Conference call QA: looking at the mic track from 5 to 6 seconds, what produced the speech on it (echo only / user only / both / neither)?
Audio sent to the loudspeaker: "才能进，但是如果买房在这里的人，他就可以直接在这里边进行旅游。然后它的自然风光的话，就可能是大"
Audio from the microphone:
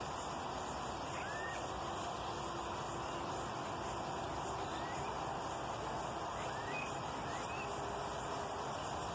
neither